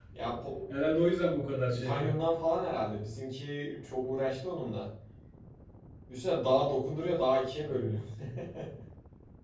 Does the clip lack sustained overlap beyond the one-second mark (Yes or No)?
Yes